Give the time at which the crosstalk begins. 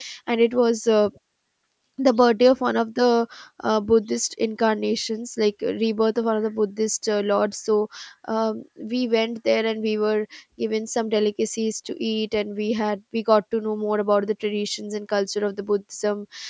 none

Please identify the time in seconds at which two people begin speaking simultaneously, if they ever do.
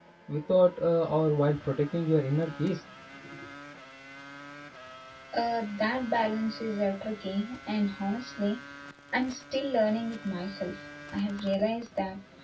none

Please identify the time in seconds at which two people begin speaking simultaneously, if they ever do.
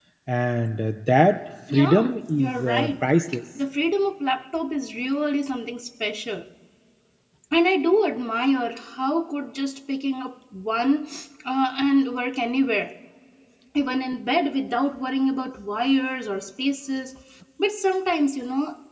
1.7 s

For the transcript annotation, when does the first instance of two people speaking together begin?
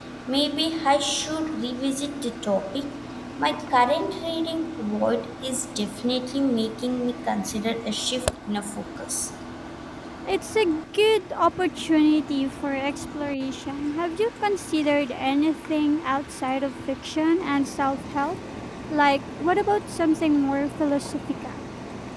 none

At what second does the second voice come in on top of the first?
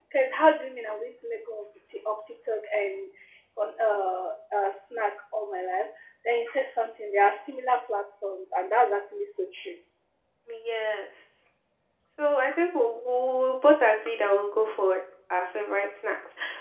none

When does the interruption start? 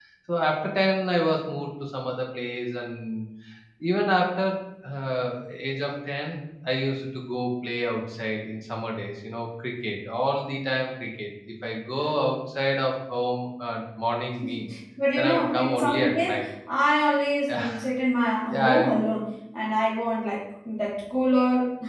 15.2 s

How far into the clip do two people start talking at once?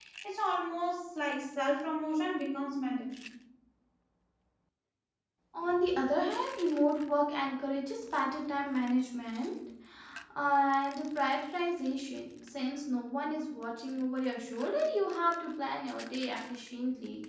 none

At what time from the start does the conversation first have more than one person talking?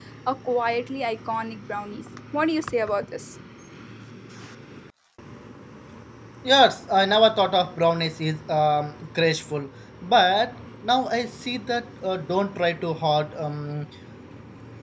none

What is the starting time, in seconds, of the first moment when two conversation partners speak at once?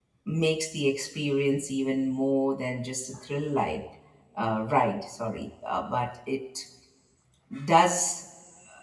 none

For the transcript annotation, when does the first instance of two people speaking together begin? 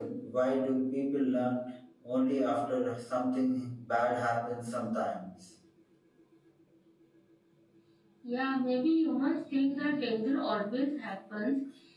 none

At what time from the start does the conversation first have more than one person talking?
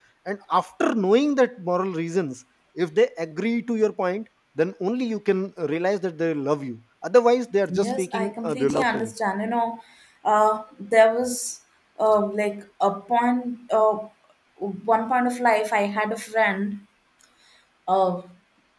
7.7 s

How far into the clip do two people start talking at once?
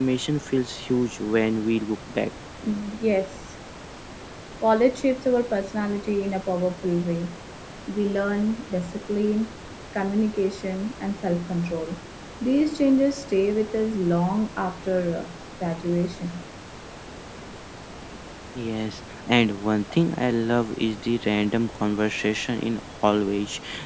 none

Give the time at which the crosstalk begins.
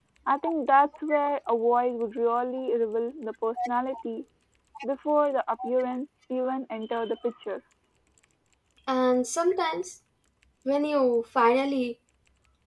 none

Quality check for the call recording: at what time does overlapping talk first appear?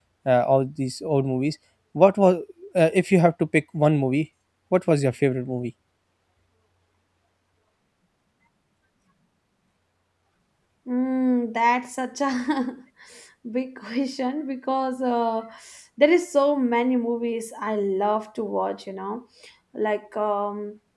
none

